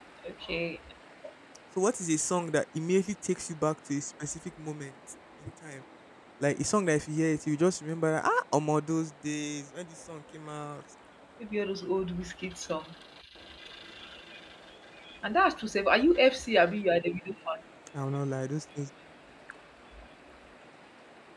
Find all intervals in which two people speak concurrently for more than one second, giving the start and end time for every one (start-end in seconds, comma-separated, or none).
none